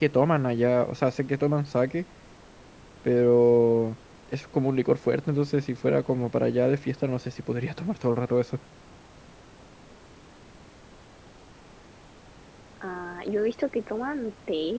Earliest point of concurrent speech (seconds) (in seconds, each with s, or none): none